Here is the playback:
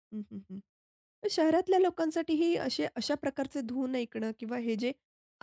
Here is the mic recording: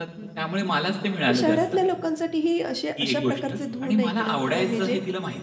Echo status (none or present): present